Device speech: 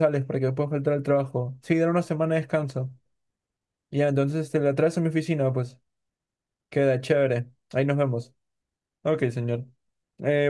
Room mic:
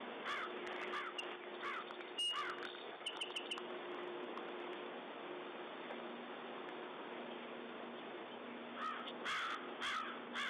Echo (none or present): none